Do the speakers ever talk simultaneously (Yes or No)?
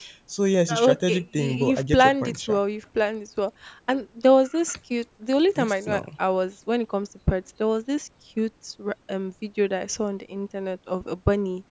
Yes